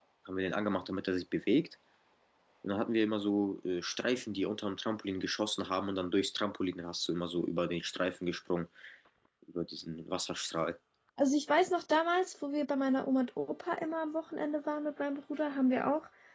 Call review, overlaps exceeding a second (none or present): none